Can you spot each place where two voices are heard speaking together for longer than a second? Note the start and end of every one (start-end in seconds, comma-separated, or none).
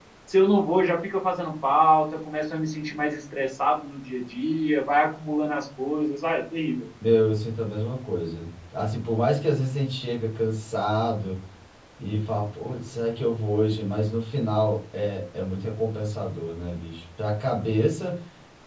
none